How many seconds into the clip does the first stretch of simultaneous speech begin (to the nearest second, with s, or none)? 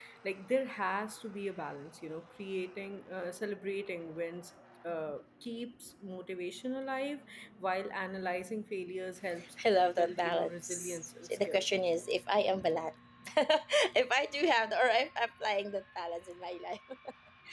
10 s